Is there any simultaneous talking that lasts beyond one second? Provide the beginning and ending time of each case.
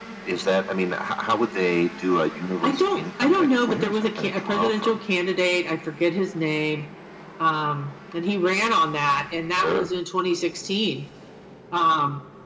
2.6-5.0

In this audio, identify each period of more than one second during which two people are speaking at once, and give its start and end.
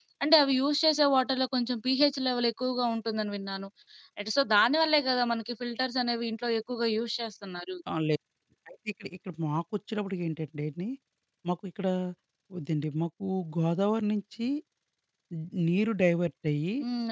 none

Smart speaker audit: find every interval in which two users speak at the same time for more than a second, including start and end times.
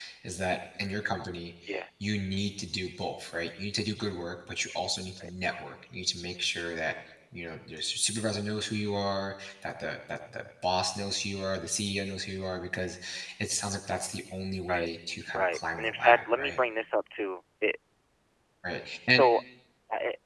15.3-16.6

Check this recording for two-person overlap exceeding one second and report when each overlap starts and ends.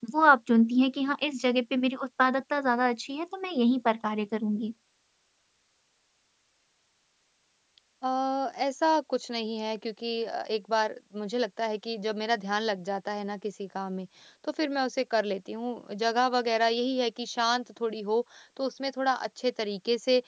none

